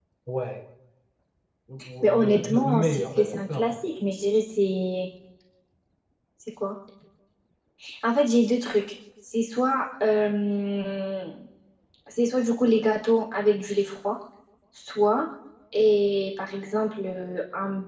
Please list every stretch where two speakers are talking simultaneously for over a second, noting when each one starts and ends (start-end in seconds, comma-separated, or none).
2.0-3.7